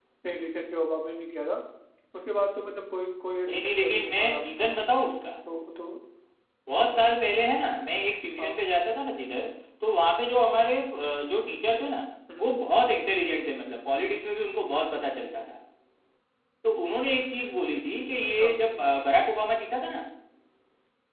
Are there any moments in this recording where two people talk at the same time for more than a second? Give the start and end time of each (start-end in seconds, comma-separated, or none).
3.5-4.8